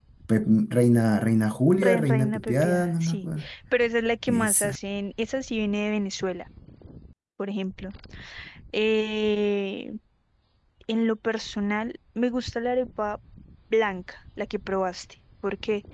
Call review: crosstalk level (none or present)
present